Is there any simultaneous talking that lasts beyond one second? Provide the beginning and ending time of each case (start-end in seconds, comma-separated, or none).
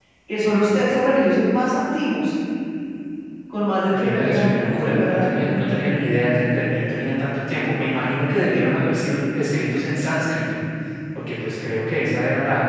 3.9-5.7